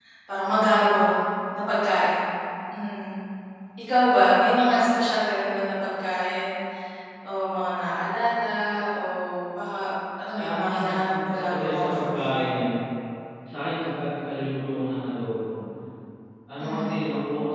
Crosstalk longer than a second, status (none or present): present